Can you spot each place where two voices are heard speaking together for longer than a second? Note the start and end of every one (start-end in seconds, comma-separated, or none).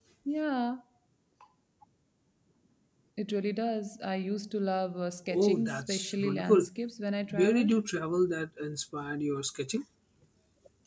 5.3-6.7